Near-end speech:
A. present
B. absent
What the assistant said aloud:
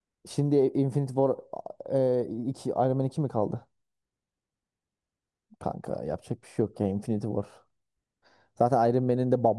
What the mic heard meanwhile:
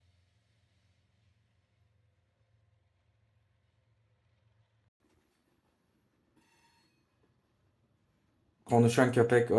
A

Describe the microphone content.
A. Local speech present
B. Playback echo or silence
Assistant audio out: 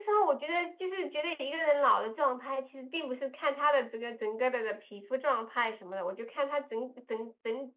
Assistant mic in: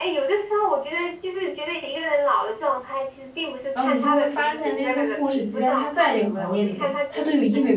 A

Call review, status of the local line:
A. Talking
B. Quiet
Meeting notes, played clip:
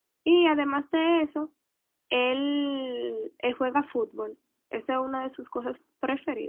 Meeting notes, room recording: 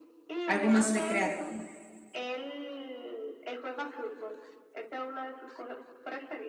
A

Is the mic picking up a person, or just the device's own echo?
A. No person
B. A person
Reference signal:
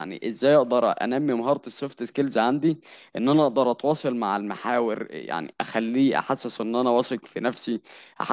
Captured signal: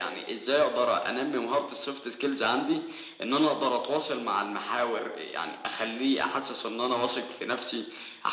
A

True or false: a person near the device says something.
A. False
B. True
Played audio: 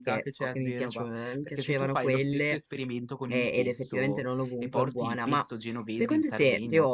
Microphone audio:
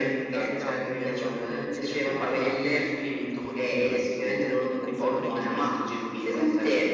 B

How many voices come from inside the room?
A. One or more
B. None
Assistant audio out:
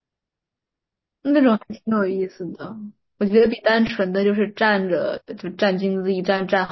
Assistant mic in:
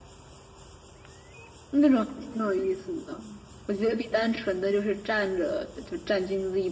B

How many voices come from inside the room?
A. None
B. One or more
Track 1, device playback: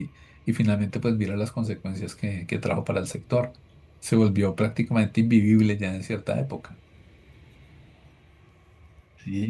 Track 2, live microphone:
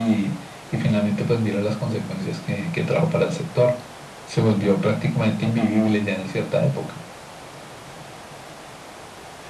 A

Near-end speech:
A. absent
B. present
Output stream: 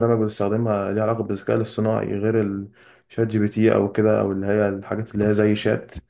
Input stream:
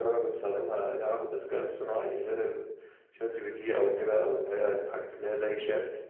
A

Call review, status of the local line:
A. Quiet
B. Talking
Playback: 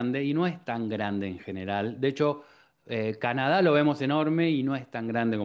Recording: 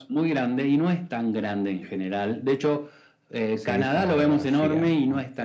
B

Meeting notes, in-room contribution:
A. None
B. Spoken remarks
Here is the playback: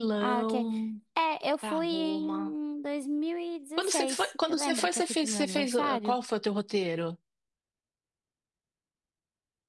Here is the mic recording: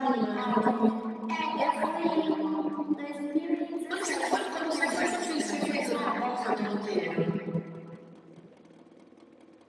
A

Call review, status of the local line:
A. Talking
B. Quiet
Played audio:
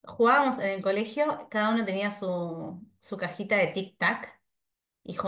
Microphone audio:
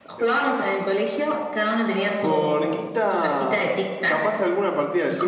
A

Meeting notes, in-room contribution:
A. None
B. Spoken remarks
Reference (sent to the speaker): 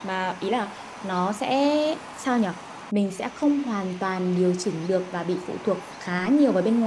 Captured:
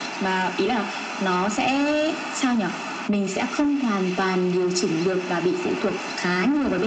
A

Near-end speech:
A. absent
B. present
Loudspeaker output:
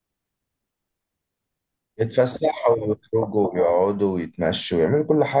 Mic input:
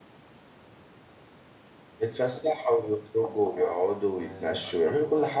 B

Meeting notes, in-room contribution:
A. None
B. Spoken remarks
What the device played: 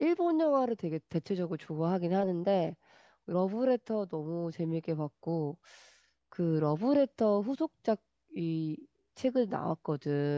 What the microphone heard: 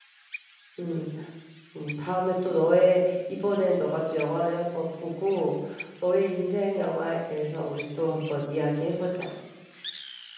B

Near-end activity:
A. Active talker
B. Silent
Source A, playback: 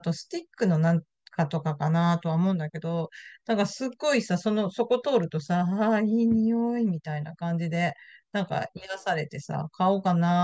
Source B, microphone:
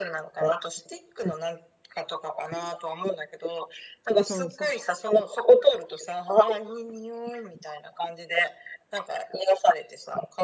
A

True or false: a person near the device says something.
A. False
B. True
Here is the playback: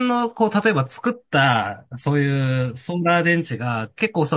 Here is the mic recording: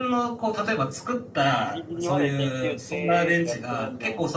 B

